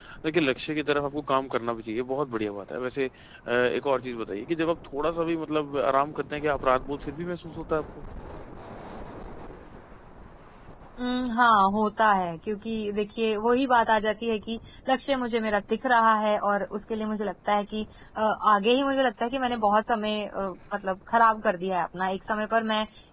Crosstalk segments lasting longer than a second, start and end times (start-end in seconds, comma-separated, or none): none